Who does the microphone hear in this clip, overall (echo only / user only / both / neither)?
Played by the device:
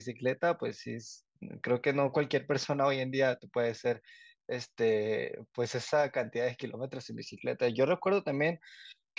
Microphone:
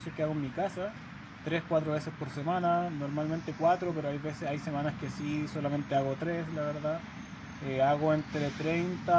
user only